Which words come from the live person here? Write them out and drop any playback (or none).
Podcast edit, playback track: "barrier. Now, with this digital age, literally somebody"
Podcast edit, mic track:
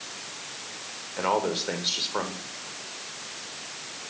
and all those things just from